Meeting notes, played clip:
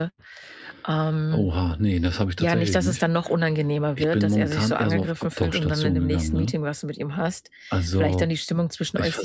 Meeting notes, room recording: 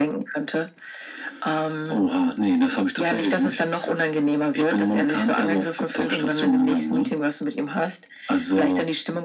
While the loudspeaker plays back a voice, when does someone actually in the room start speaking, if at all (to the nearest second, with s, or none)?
none